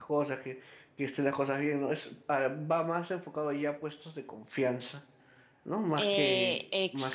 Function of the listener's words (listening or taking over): taking over